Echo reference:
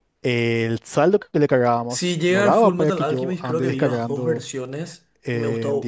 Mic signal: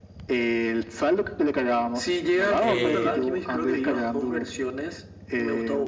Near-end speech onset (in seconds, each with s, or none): 2.6 s